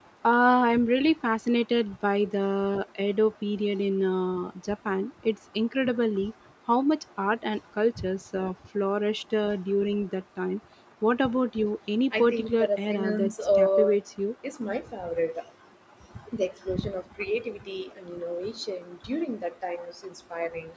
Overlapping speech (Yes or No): Yes